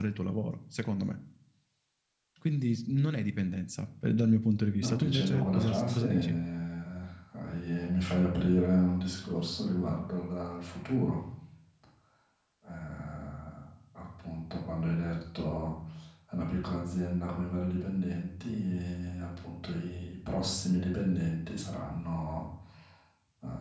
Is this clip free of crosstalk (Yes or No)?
No